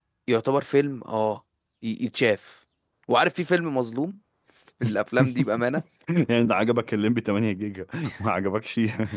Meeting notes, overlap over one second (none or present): none